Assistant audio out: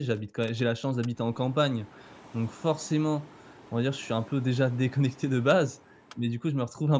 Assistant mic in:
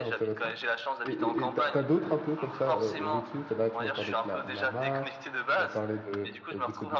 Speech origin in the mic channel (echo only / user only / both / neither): both